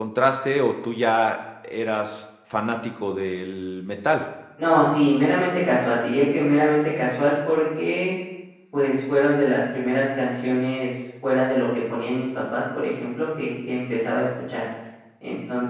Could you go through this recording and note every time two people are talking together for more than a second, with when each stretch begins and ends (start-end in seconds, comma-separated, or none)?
none